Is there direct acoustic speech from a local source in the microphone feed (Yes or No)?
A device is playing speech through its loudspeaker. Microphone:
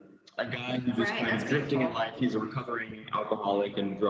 Yes